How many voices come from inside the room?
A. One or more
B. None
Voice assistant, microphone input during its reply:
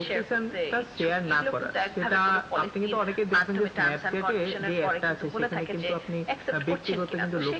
B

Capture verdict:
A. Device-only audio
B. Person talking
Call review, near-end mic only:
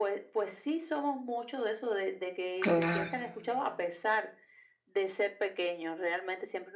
B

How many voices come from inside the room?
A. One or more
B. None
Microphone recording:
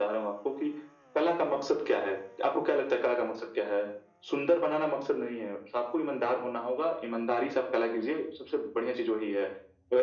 B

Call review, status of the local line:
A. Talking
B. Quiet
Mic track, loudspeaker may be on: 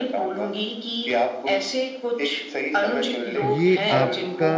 A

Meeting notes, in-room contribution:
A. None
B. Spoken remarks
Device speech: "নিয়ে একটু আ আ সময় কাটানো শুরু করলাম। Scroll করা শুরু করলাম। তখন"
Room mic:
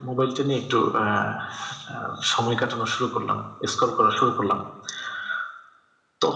A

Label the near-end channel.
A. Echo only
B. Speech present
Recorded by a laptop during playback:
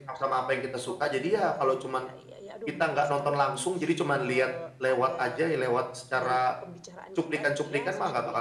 B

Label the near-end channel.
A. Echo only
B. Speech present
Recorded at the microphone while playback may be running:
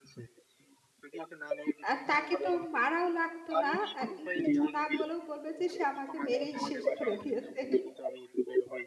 B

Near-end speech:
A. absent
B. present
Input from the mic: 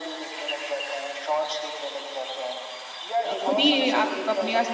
B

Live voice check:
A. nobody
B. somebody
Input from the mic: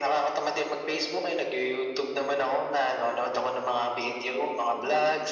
A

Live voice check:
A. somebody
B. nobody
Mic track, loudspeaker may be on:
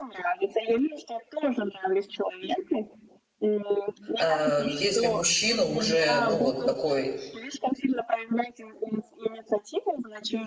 A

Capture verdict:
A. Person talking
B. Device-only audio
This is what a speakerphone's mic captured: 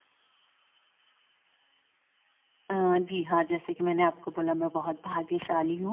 A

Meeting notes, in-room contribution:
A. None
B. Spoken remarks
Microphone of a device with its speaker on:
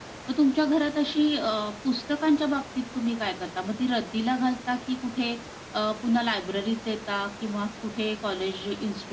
A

